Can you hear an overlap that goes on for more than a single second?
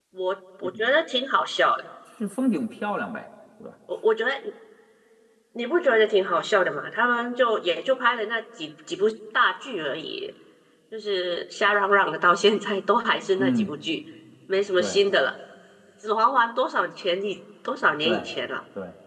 No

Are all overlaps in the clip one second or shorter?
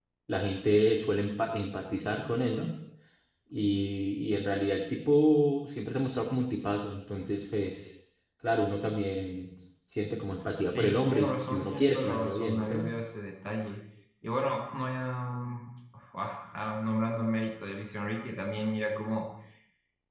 No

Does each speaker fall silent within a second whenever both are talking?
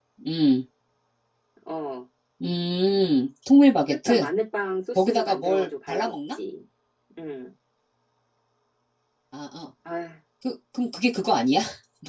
No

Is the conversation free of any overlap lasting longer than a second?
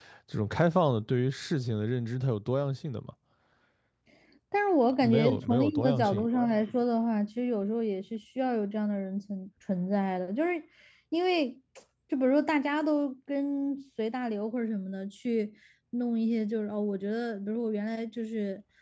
No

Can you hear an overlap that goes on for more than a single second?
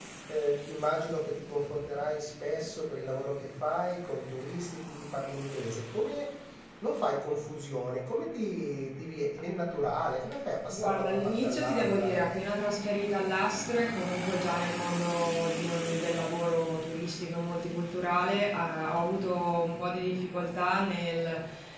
Yes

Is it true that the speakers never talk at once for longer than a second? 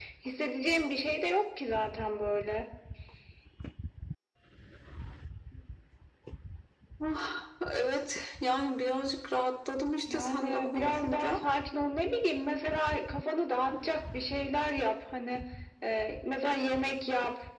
No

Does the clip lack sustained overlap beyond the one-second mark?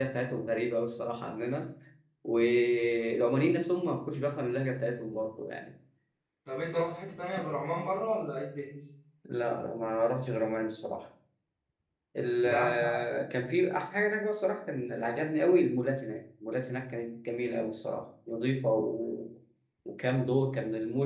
Yes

